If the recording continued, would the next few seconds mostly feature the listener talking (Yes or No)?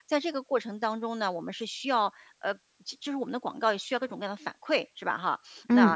No